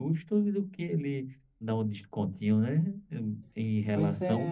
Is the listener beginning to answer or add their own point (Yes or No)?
No